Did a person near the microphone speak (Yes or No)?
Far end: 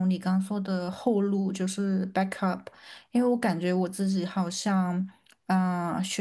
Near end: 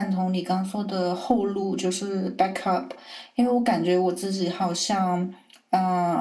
No